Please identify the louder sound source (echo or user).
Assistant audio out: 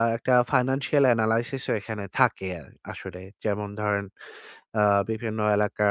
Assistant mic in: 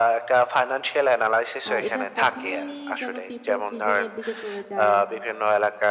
echo